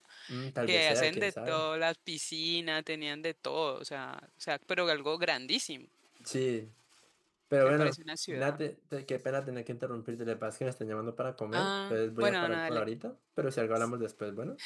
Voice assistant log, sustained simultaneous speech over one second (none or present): present